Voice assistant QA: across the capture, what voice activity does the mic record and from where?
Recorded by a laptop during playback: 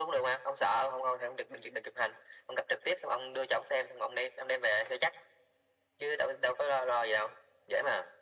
echo only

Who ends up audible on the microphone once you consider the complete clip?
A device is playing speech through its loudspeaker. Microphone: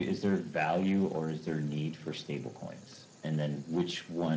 echo only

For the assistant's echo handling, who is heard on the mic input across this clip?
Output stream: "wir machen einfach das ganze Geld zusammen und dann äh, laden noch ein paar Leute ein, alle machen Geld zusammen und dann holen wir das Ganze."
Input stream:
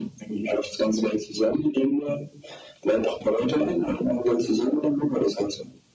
echo only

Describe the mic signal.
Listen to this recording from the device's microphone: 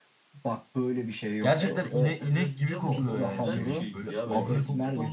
both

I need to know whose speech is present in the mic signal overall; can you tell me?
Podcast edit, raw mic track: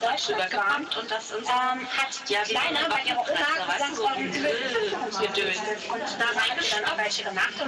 both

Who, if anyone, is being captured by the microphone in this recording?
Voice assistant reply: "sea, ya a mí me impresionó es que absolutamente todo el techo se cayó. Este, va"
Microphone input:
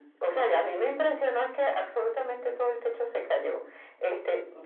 echo only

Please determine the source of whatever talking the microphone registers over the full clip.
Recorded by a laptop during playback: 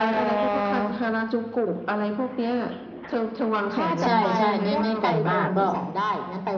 both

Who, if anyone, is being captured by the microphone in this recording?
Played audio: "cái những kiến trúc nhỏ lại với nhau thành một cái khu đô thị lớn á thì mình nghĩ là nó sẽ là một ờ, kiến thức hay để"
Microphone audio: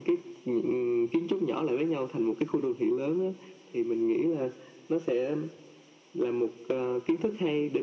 echo only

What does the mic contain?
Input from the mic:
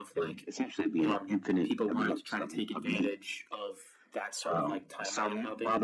echo only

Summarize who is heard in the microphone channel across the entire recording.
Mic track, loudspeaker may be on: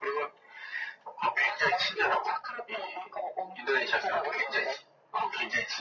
echo only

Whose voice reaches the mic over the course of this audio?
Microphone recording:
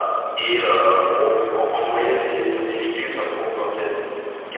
echo only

